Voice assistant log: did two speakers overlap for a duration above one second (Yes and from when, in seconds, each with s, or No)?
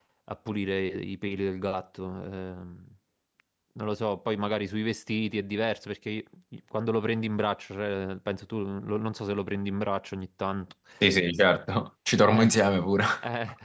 No